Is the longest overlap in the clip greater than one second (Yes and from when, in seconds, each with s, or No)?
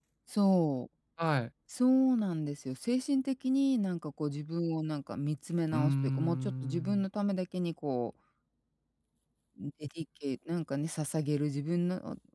Yes, from 5.7 s